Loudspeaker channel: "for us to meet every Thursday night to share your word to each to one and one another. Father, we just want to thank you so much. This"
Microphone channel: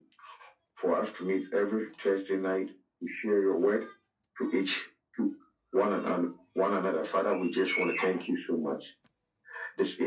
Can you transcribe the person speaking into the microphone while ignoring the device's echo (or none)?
none